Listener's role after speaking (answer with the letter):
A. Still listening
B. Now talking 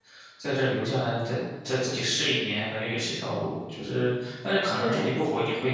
A